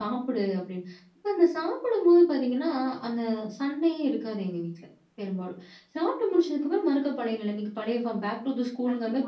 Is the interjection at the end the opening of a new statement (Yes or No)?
Yes